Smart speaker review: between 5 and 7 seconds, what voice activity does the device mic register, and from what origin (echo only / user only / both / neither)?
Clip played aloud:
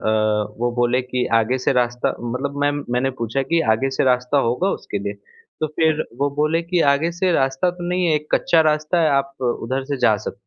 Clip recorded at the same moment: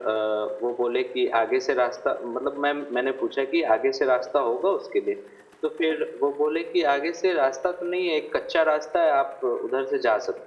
echo only